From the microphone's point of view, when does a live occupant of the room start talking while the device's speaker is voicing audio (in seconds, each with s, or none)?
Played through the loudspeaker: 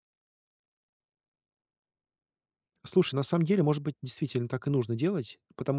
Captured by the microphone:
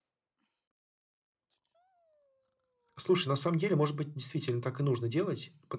none